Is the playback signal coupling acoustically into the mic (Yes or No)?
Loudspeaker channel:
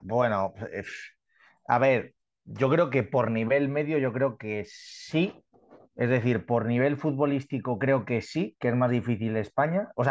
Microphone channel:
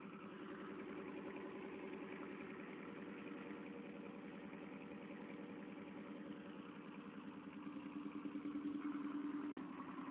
No